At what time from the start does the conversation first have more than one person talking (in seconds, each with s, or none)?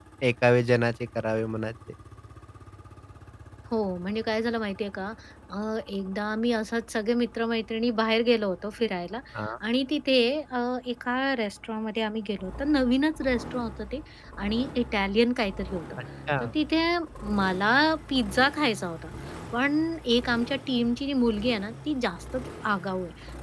none